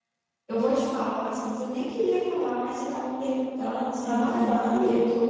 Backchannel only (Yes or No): Yes